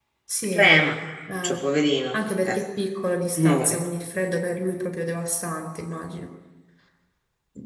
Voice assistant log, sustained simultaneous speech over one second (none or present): none